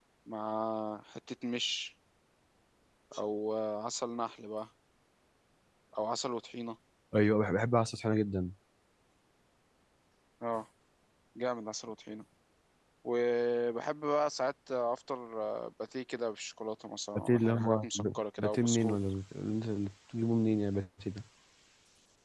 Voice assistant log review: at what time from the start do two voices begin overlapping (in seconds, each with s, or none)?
17.1 s